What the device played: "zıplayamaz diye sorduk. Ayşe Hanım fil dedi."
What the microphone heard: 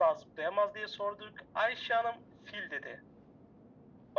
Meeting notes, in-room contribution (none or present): none